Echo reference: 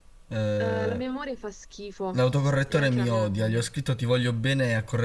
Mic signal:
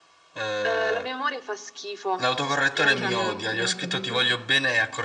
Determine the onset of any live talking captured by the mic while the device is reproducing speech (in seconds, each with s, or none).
2.8 s